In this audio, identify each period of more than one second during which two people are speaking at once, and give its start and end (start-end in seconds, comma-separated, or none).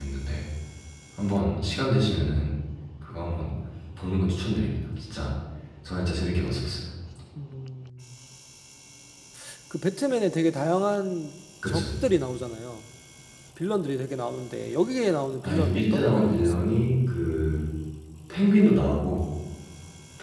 15.4-16.7